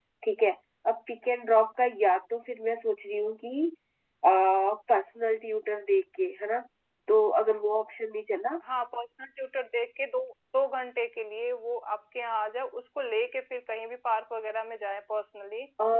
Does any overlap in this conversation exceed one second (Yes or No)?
No